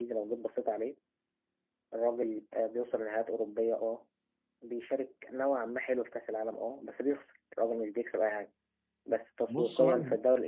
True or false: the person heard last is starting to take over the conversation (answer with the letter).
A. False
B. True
A